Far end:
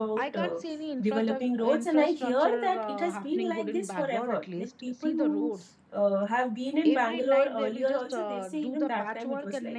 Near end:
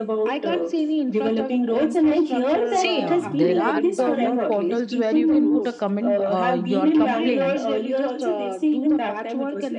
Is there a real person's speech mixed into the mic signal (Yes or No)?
Yes